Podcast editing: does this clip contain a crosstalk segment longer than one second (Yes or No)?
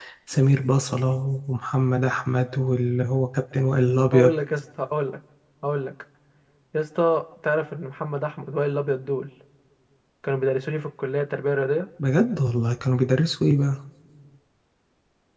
No